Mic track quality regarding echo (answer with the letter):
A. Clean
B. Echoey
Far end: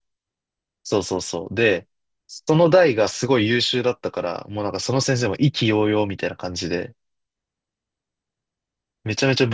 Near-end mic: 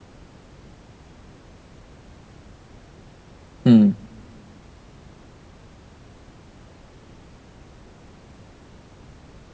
A